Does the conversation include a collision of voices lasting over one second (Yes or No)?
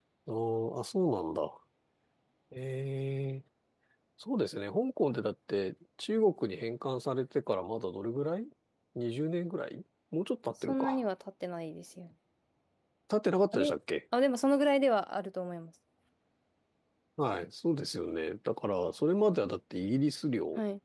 No